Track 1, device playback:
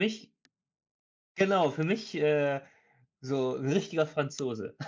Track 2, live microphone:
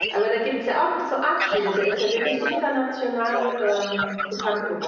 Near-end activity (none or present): present